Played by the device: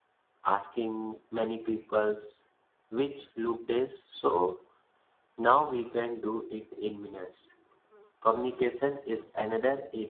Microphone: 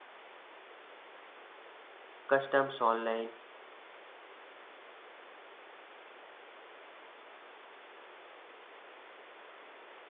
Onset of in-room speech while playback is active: 2.3 s

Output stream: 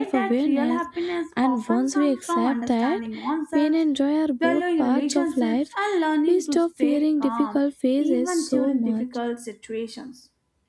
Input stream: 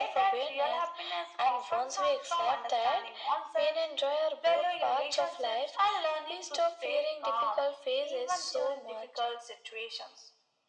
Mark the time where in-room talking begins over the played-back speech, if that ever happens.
none

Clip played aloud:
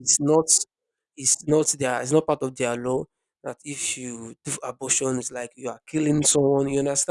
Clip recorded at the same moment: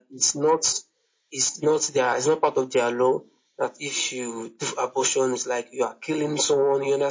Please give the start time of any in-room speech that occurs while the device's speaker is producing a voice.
none

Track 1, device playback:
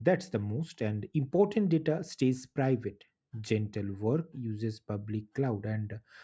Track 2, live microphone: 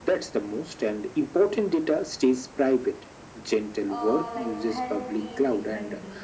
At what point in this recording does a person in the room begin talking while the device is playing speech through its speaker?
3.9 s

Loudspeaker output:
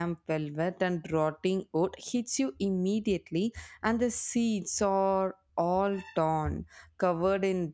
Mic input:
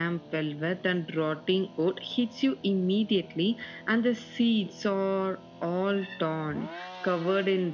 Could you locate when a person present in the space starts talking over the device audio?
none

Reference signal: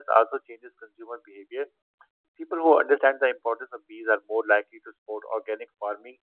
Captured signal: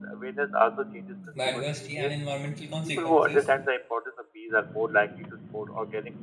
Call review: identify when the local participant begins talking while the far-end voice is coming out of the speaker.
1.4 s

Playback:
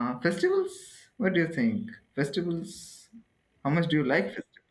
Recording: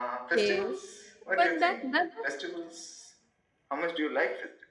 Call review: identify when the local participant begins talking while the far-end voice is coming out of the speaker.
0.3 s

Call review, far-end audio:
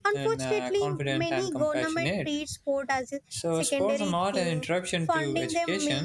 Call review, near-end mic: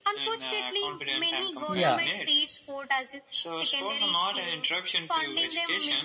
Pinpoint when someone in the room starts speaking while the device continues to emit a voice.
1.7 s

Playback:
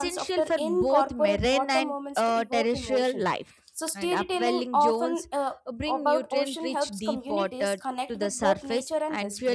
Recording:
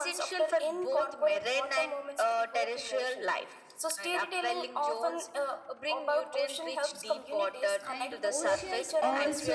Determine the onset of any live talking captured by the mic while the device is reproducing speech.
7.9 s

